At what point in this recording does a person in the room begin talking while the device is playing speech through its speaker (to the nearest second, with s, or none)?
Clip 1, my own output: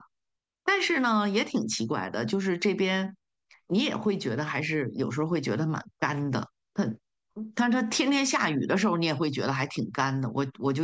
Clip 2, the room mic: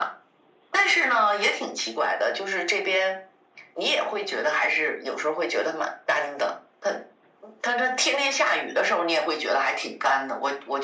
none